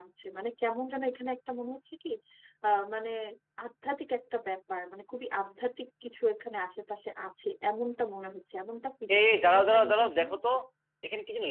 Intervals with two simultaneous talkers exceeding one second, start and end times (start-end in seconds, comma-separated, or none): 9.2-10.4